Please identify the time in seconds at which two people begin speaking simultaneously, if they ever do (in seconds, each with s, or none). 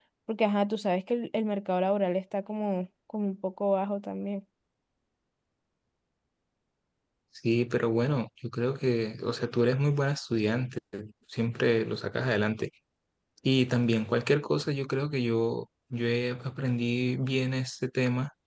none